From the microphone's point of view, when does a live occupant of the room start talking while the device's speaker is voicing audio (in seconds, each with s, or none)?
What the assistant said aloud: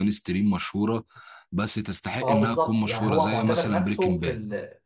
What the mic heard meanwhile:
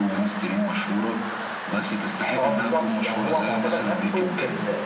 none